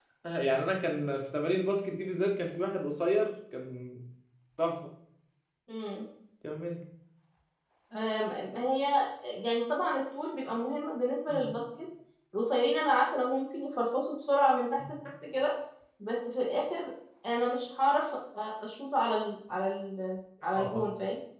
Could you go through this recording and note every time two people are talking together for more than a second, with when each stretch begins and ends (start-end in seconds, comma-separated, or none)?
none